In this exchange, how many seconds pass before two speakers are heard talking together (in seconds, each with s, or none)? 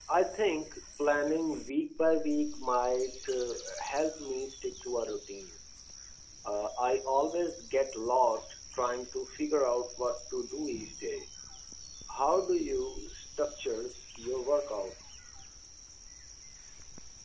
none